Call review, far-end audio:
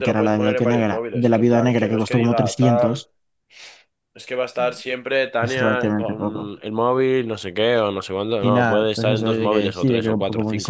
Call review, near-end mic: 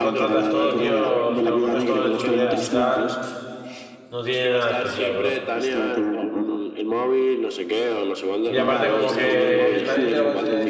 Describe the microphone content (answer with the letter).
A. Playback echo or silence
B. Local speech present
B